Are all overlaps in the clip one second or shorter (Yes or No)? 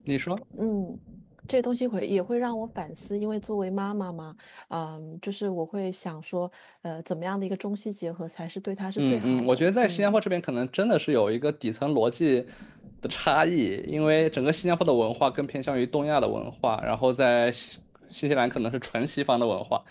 No